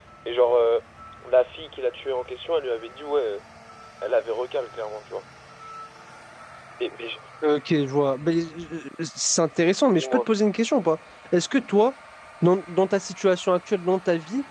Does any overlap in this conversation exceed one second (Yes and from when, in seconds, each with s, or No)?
No